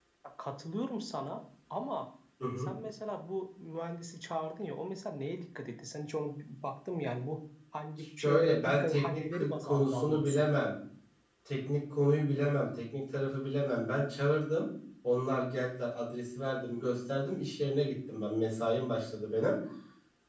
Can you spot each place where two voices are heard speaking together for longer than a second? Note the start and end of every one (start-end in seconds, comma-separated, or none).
8.2-10.4